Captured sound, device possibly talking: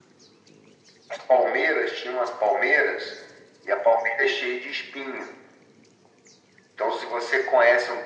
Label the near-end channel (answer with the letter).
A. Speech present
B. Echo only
B